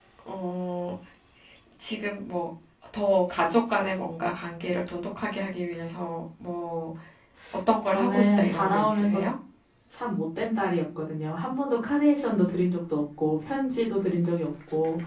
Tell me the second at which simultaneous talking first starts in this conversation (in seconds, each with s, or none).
7.9 s